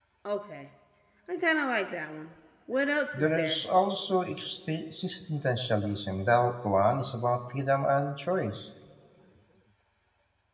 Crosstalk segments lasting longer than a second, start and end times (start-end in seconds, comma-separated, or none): none